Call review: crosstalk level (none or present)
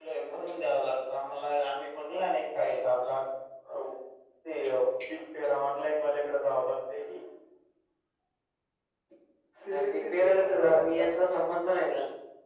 present